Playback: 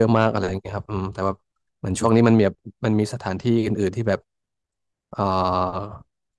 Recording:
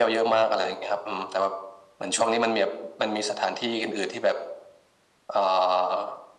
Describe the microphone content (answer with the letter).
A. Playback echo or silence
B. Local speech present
A